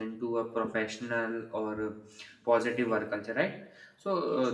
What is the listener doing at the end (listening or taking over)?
listening